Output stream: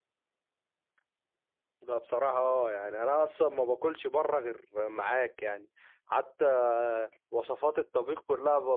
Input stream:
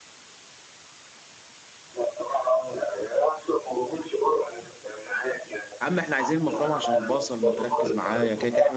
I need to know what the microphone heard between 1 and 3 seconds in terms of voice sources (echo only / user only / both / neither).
echo only